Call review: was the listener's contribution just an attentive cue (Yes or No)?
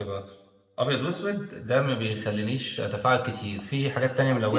No